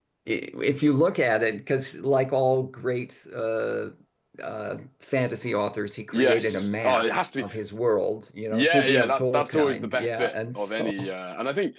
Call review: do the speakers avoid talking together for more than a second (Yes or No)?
No